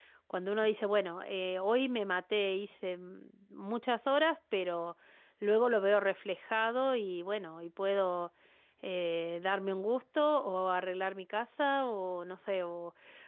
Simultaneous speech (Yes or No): No